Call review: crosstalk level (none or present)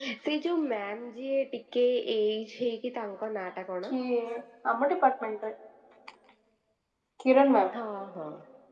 none